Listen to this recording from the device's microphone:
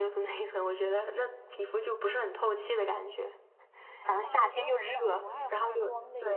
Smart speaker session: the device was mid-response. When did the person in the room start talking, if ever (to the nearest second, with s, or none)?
4 s